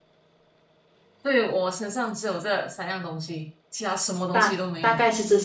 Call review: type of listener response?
taking over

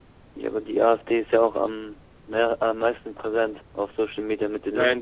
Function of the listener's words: taking over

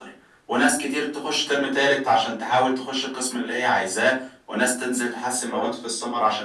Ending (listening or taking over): listening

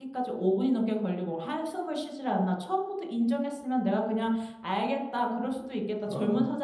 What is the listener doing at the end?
listening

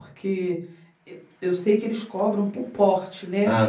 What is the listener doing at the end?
taking over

